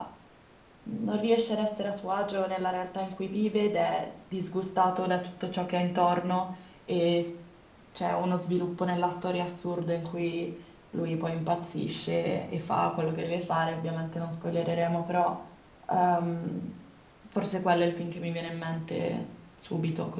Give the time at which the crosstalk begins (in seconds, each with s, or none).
none